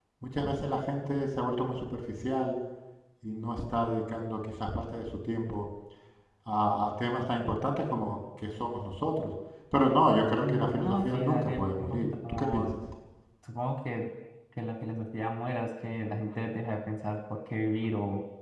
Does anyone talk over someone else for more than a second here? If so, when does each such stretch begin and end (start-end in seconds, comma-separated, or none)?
10.4-12.8